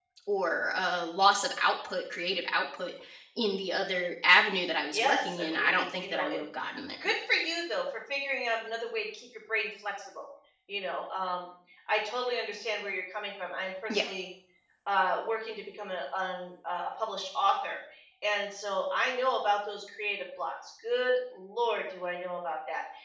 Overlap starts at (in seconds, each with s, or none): 4.9 s